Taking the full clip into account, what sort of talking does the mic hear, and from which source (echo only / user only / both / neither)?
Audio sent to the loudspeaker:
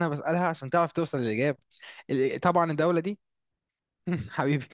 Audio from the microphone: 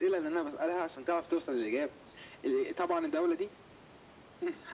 echo only